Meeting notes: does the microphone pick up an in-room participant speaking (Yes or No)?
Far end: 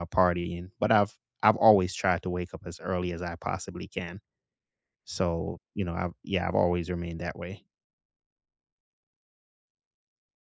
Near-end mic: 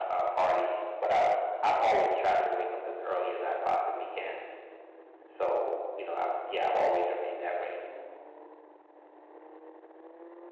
No